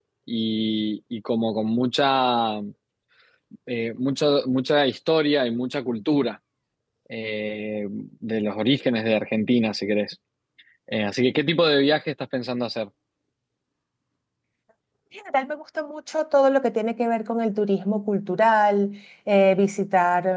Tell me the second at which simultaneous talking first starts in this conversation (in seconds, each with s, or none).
none